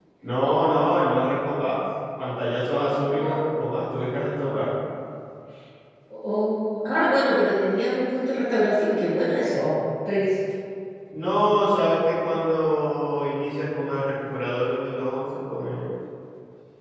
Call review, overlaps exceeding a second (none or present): none